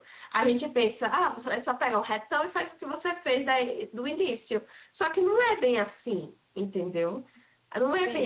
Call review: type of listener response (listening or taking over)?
taking over